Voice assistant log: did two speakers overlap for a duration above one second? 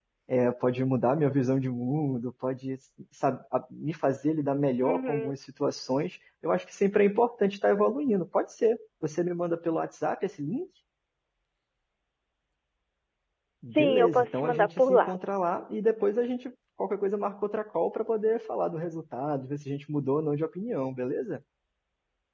Yes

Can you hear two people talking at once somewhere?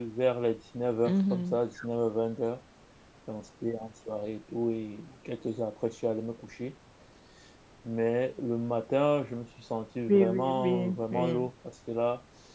Yes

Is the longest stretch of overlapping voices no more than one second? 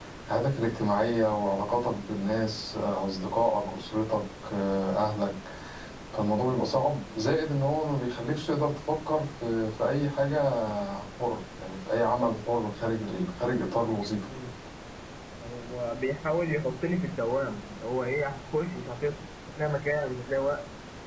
Yes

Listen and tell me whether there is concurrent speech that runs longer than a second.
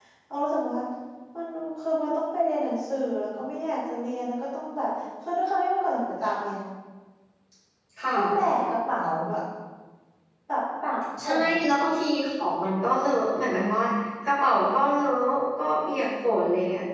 No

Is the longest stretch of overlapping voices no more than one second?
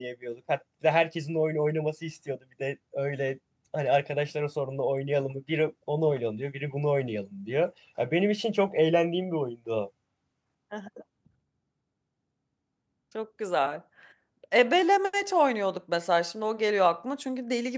Yes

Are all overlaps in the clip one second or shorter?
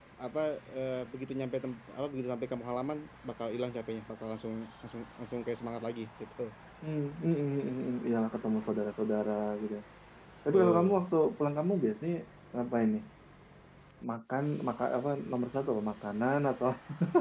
Yes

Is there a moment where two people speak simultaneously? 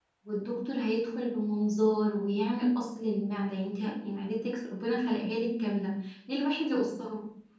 No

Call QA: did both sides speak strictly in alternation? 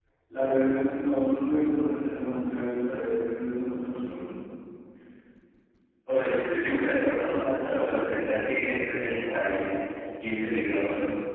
Yes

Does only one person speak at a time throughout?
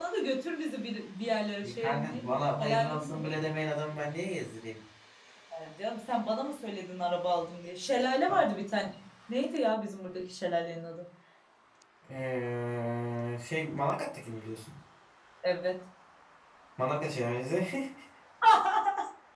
No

